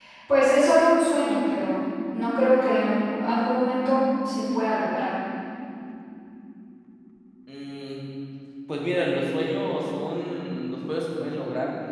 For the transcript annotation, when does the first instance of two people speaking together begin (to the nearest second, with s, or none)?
none